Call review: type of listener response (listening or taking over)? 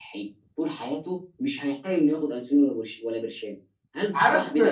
taking over